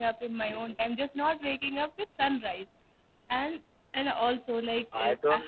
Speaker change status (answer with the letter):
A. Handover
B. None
A